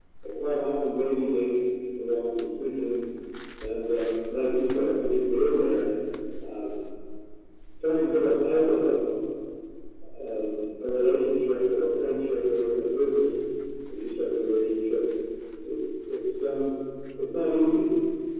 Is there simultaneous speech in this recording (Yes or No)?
No